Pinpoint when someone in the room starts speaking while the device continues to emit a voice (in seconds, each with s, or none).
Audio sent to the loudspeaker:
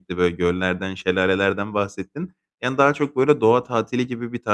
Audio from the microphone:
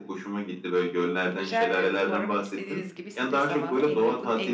1.3 s